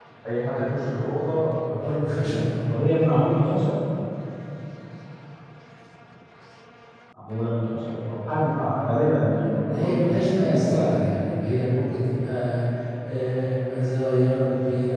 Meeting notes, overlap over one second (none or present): present